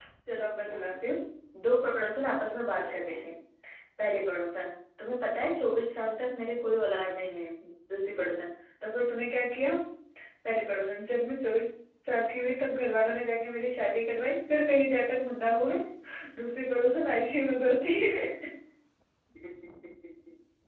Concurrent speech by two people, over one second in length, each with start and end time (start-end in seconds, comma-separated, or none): none